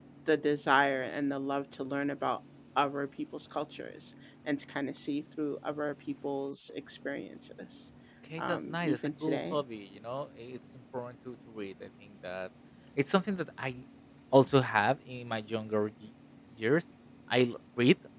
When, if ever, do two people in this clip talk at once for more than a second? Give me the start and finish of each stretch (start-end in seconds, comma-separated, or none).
8.4-9.6